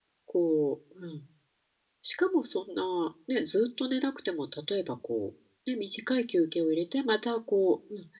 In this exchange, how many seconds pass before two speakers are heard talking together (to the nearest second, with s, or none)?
none